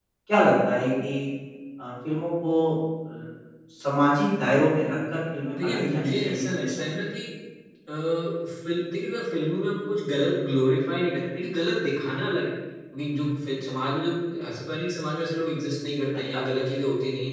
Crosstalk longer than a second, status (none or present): present